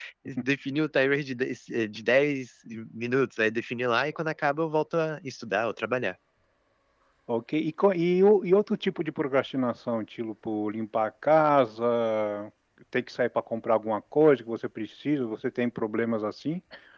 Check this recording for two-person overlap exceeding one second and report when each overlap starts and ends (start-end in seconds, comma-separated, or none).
none